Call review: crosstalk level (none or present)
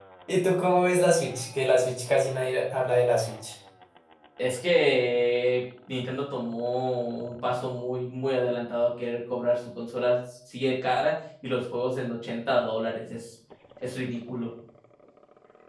none